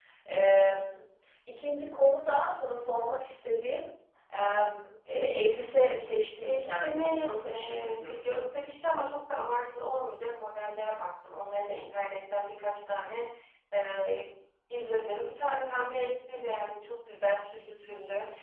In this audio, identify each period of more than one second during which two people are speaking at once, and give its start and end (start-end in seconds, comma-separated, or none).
6.4-8.4